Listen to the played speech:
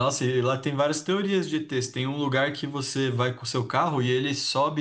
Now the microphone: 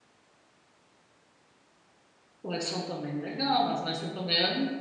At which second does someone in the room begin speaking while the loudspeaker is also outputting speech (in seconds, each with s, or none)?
2.4 s